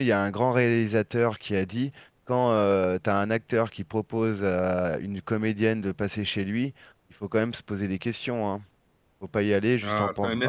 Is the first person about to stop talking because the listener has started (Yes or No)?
Yes